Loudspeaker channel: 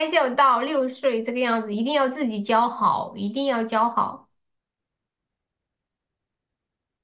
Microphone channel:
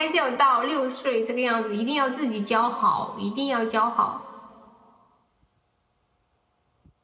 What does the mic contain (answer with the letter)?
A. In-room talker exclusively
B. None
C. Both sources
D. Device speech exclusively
D